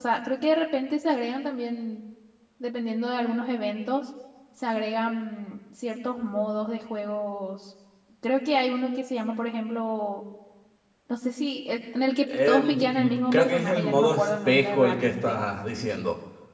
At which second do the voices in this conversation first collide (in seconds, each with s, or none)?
12.3 s